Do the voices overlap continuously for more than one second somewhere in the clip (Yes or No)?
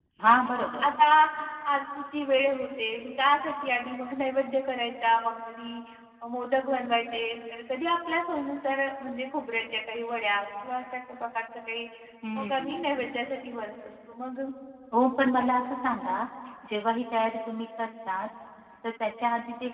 No